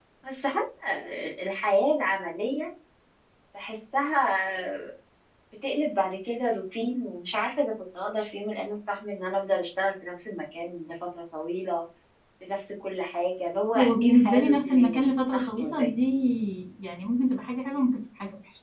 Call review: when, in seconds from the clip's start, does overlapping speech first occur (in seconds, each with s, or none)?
13.8 s